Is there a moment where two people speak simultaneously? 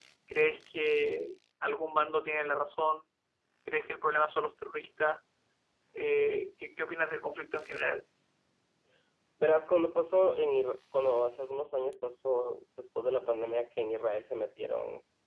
No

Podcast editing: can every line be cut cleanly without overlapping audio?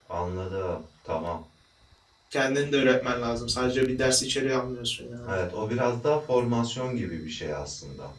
Yes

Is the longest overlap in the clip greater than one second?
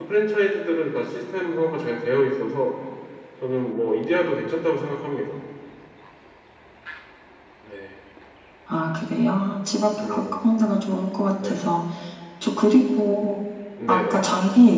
No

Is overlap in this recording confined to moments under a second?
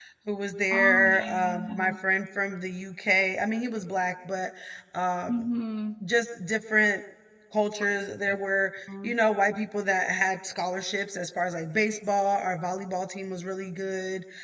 No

